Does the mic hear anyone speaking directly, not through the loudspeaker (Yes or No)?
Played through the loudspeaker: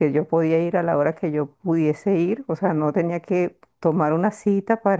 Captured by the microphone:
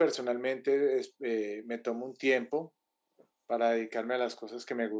Yes